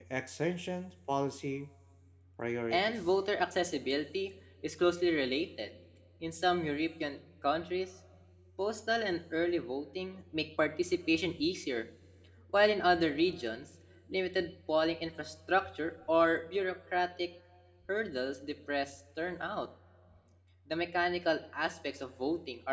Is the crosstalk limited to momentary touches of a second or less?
Yes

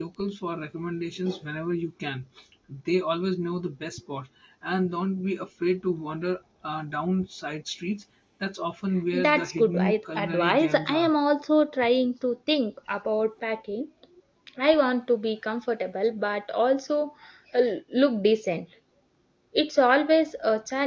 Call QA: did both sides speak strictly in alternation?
No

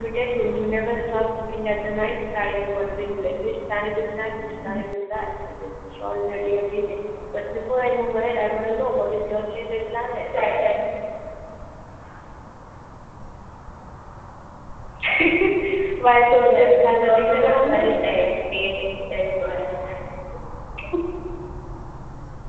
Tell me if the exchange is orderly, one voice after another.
No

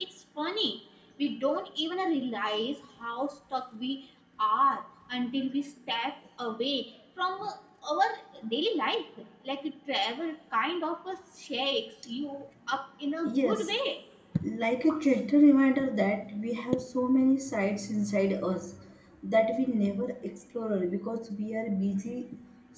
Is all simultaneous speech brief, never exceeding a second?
Yes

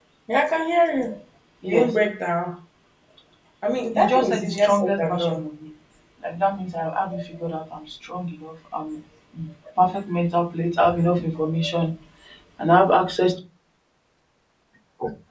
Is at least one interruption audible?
Yes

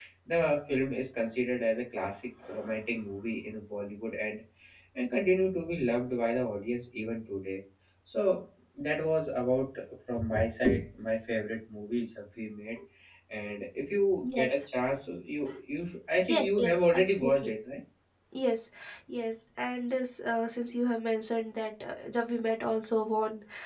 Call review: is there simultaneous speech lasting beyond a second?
Yes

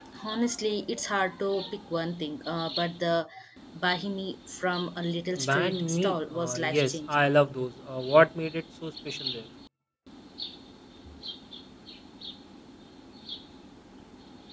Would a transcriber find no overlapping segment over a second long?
No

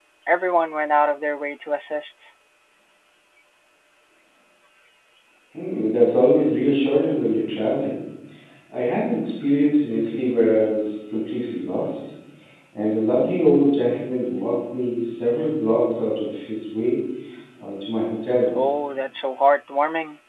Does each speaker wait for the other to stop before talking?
Yes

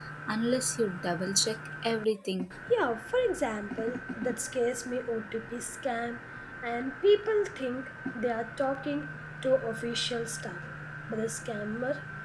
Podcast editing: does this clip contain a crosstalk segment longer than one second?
No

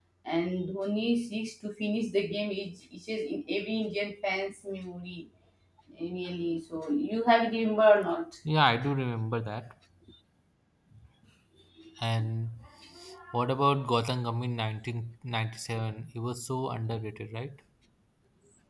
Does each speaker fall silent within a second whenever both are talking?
Yes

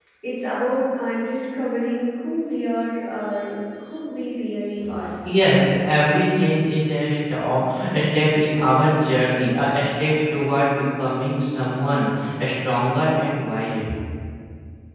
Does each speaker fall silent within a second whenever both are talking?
Yes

